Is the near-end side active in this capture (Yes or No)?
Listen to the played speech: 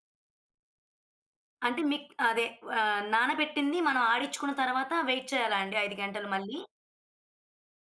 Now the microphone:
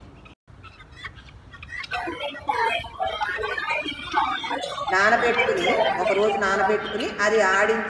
Yes